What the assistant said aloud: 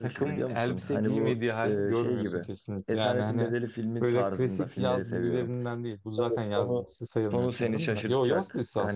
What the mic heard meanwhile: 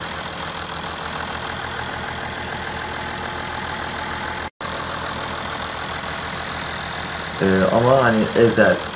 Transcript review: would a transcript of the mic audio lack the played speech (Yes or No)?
Yes